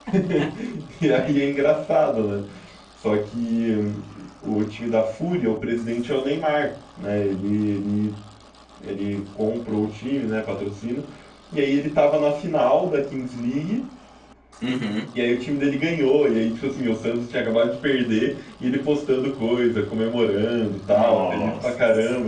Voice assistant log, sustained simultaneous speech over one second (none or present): present